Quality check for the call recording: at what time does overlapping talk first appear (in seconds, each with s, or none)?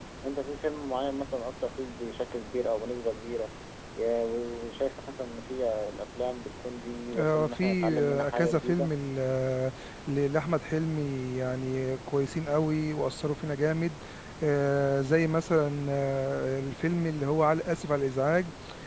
7.1 s